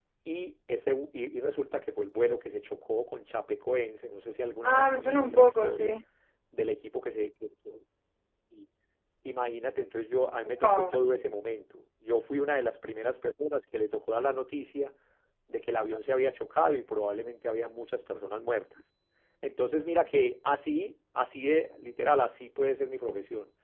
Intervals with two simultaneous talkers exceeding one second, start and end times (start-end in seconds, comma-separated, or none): 4.6-6.0